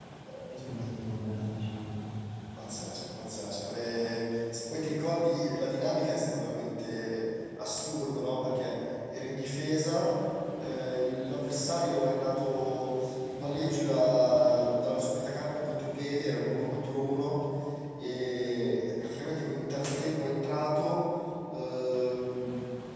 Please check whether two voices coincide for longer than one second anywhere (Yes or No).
No